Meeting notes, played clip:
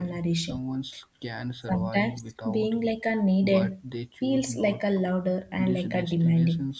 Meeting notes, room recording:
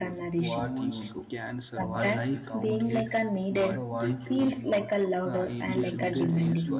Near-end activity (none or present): present